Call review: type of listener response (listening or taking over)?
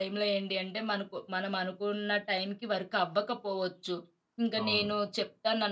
listening